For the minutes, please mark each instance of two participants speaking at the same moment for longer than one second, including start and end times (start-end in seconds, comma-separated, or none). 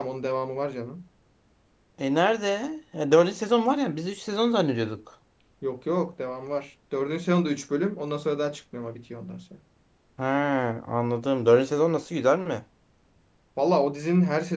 none